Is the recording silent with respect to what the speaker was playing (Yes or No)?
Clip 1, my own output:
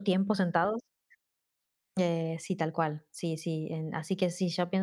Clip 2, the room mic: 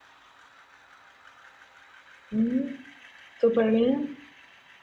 Yes